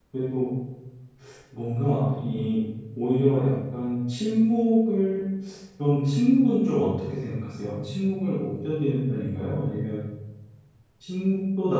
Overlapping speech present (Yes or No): No